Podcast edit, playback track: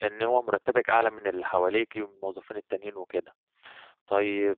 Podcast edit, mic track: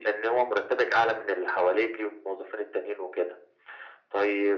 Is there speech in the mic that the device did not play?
No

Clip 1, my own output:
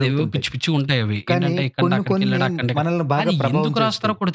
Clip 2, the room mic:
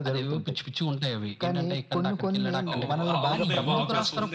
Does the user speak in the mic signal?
Yes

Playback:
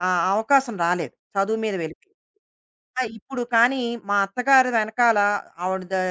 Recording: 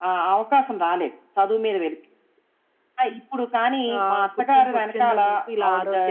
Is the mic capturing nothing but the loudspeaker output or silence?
No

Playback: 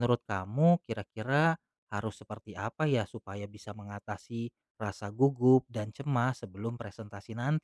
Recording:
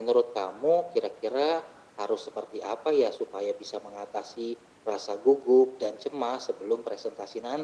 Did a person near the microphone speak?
No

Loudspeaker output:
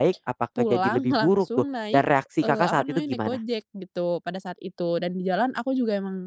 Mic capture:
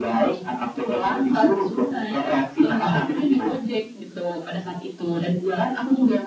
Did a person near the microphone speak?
No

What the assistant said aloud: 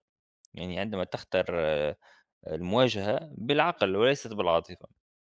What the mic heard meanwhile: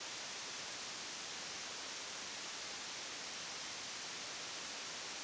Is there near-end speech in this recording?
No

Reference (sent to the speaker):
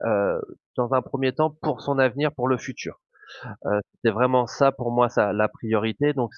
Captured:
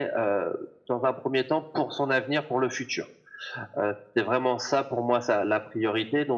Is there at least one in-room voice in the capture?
No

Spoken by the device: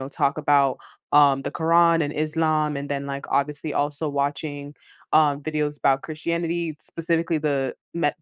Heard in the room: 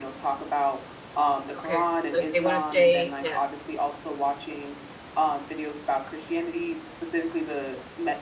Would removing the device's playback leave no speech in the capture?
No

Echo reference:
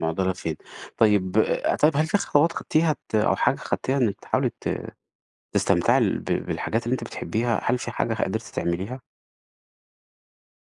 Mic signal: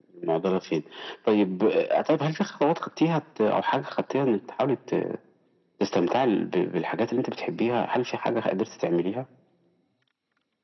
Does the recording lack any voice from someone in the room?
Yes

